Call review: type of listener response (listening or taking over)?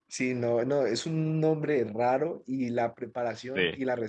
listening